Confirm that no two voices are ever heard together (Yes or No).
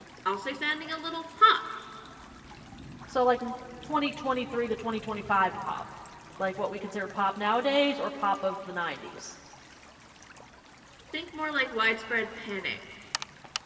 Yes